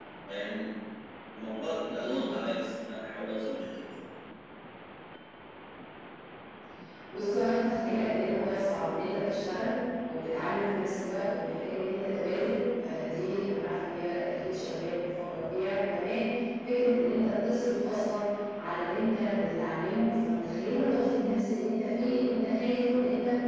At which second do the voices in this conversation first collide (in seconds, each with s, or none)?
none